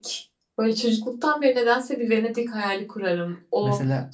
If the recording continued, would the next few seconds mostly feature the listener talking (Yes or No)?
No